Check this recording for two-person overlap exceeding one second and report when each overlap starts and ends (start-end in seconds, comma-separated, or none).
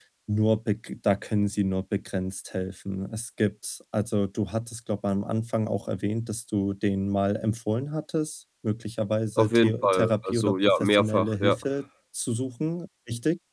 9.4-11.6